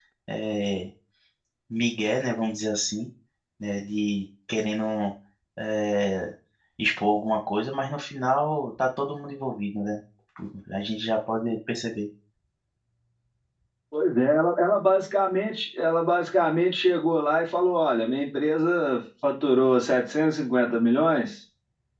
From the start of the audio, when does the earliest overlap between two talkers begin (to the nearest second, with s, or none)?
none